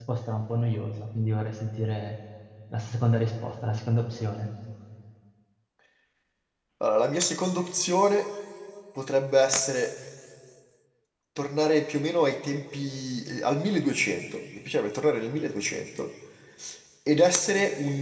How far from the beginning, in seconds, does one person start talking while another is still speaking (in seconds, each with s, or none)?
none